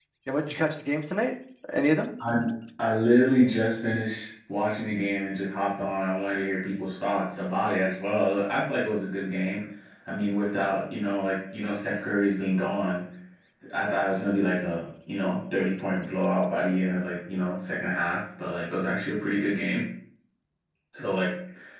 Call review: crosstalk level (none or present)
none